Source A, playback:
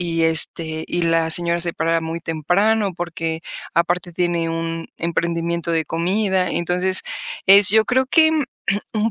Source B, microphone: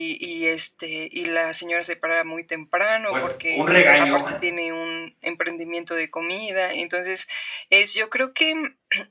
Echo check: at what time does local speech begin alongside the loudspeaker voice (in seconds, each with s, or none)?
3.1 s